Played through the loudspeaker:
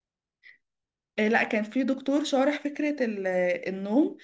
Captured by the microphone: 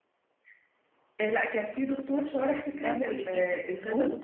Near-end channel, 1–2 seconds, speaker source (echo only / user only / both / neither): echo only